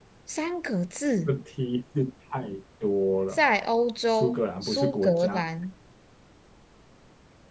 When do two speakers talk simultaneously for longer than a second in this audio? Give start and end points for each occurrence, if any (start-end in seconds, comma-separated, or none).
4.1-5.4